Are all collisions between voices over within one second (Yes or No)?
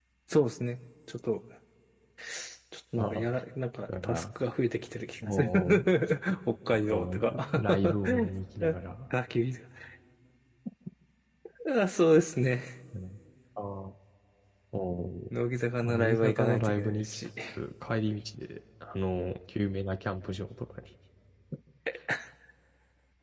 No